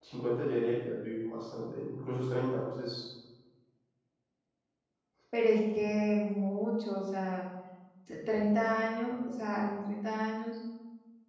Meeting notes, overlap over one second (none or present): none